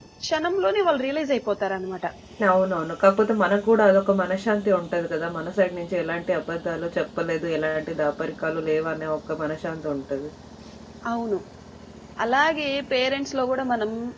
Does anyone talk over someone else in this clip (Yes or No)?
No